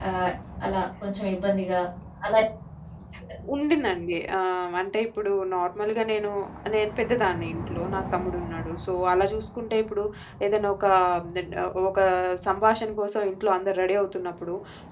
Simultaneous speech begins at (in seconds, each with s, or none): none